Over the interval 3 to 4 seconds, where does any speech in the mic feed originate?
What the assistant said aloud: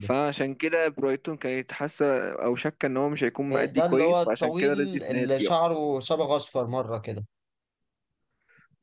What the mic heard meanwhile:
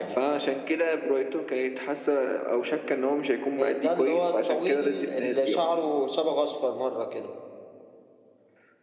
echo only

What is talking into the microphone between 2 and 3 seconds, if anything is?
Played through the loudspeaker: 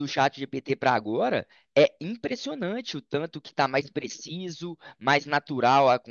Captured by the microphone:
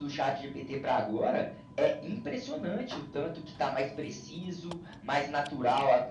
echo only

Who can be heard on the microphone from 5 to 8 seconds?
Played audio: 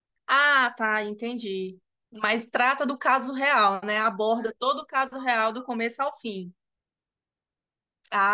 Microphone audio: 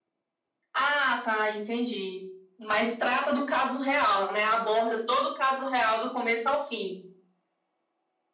echo only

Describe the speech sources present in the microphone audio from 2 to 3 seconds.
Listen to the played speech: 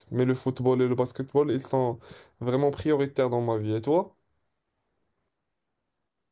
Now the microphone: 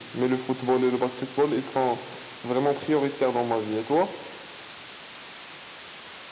echo only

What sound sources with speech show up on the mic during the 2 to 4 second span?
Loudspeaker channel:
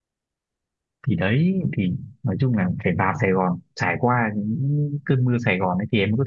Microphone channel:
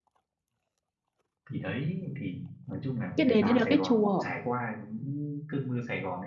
both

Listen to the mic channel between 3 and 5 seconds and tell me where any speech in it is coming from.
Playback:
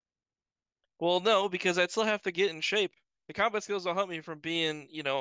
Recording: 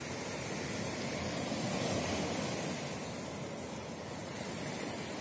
neither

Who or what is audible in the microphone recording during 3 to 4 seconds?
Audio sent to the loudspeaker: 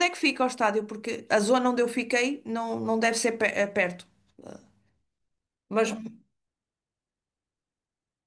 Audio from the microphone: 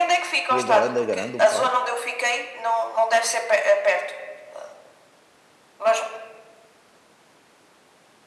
echo only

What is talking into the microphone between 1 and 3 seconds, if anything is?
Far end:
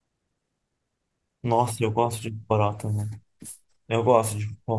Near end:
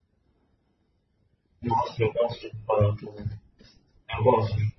echo only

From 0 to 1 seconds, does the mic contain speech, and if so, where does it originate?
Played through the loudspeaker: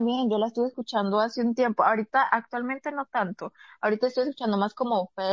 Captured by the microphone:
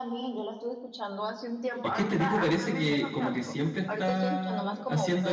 echo only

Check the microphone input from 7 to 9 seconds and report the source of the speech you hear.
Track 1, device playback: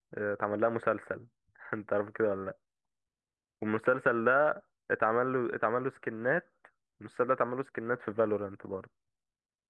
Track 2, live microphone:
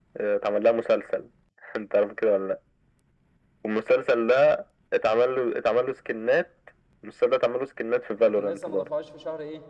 both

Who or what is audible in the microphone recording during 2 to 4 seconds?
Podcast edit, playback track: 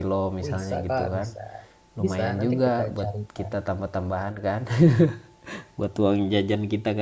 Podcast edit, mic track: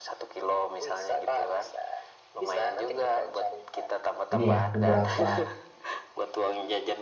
echo only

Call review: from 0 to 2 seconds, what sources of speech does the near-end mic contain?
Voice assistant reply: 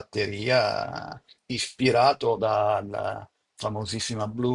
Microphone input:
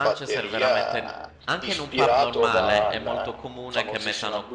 both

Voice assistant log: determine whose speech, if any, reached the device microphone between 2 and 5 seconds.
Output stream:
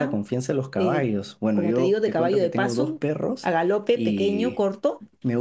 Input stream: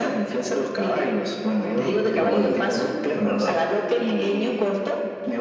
both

